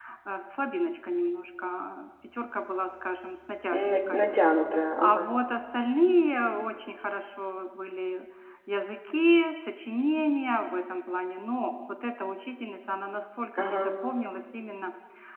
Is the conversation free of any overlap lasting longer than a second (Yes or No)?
Yes